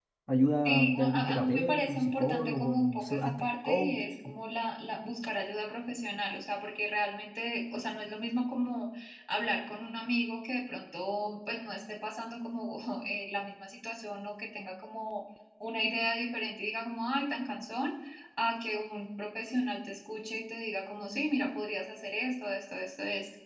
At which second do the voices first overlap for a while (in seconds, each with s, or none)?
0.6 s